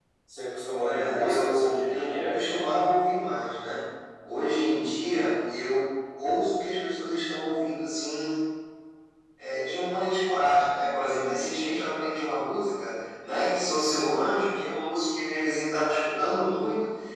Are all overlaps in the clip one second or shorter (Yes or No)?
No